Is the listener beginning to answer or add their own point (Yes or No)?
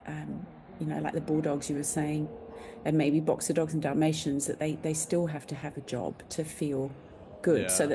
No